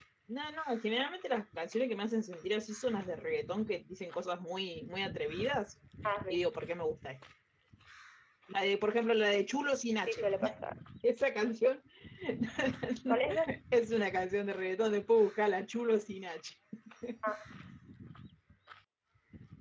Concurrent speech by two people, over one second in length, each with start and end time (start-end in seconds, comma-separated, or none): none